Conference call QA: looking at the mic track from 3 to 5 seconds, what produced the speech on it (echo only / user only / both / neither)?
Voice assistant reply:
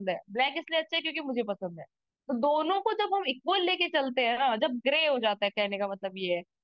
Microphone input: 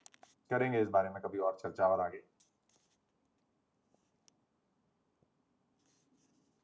neither